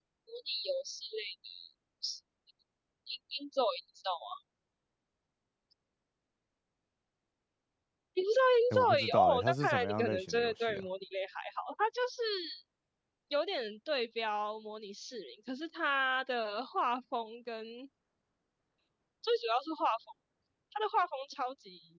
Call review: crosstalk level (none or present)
present